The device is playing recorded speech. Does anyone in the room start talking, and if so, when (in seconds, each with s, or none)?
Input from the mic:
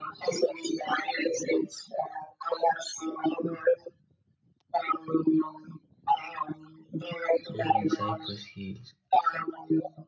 7.6 s